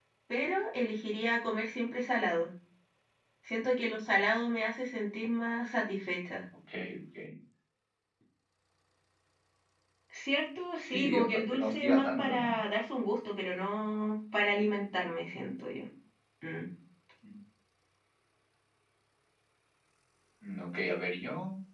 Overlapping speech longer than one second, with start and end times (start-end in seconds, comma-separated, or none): 10.9-12.5